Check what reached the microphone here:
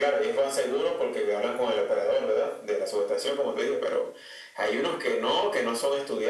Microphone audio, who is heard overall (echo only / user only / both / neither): echo only